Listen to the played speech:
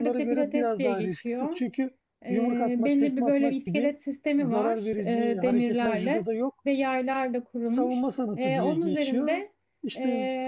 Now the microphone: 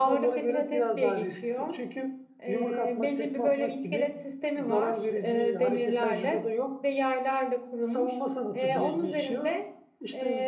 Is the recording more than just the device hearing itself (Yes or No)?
No